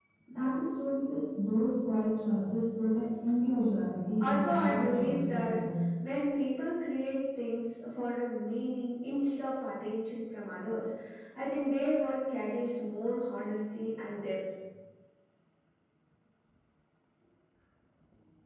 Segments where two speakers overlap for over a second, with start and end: 4.2-5.6

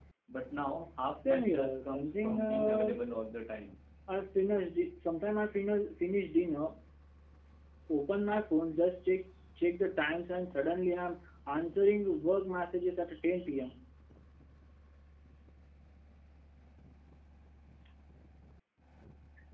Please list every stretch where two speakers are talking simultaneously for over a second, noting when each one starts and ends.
1.2-3.0

